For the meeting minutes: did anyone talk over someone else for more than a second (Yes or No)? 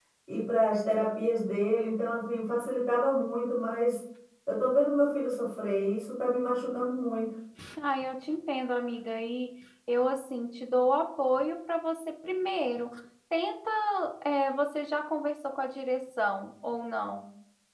No